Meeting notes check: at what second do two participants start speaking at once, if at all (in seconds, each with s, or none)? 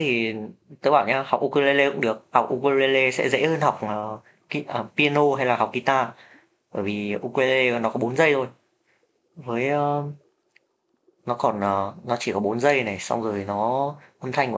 none